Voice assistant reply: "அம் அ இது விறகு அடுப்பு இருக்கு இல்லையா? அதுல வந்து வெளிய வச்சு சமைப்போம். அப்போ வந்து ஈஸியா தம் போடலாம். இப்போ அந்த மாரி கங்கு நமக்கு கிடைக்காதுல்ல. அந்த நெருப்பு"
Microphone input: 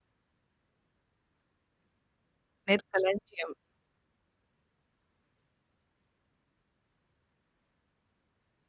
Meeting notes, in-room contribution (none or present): present